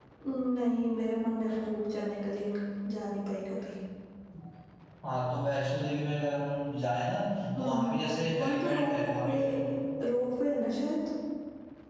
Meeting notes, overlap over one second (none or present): present